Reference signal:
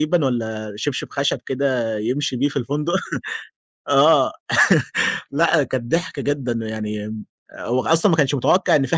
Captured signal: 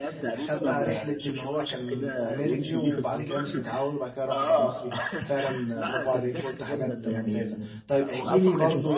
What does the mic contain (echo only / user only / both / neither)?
both